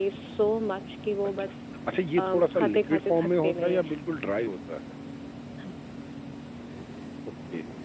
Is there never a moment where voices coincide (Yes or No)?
No